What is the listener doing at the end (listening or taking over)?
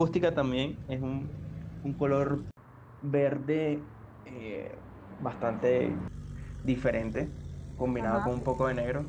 listening